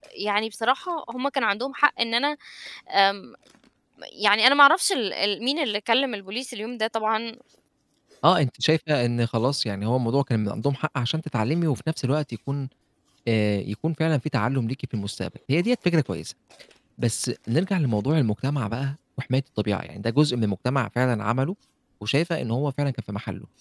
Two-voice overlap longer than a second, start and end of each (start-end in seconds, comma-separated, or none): none